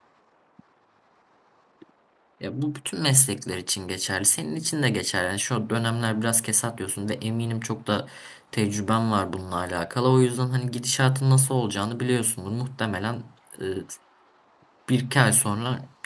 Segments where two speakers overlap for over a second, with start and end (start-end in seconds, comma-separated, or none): none